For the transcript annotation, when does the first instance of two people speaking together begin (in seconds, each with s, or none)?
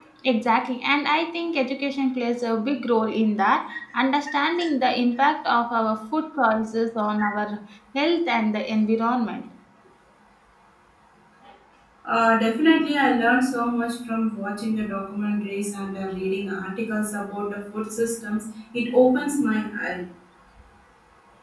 none